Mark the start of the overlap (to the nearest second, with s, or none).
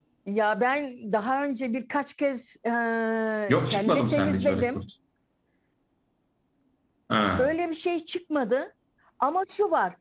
3 s